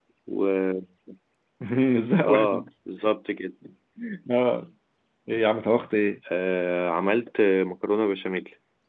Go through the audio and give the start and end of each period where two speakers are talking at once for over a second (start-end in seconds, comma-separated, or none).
none